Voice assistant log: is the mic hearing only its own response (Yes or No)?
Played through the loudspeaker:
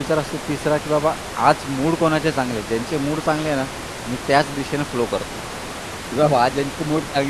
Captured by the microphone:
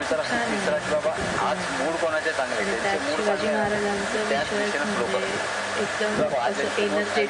No